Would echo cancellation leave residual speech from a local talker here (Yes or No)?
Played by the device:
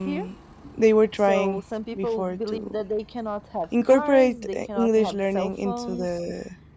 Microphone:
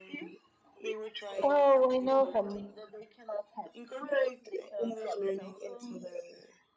Yes